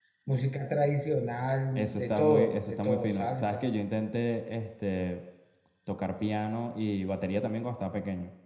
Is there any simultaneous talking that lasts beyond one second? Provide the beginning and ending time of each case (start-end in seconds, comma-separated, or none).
1.8-3.6